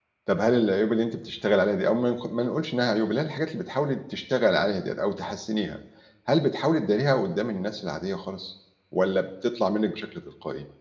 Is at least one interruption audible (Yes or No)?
No